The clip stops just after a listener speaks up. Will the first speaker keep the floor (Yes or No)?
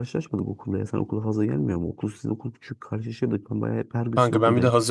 No